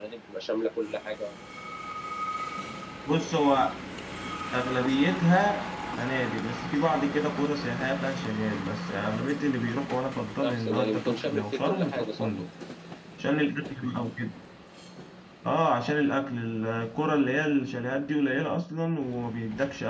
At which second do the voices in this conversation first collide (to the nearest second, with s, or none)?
10 s